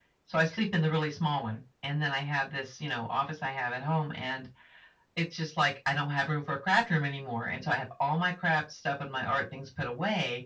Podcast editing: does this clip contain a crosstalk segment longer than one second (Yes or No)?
No